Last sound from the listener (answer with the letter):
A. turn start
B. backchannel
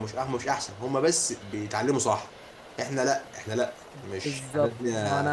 A